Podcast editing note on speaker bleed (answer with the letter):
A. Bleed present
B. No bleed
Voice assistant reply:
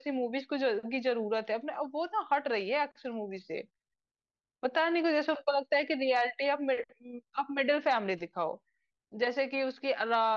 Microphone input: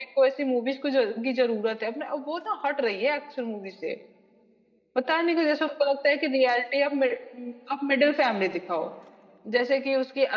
A